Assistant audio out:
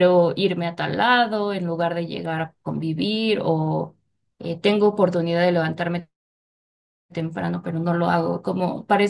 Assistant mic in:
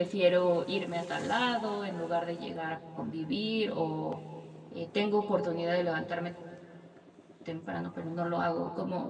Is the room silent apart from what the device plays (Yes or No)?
Yes